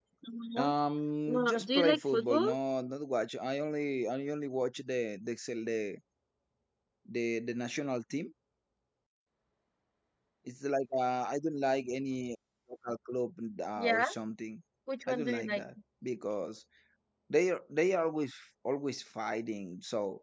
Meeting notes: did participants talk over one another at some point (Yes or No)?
Yes